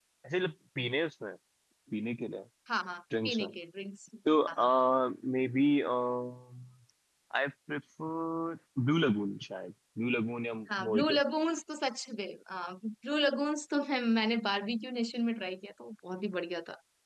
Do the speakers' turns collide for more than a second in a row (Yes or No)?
No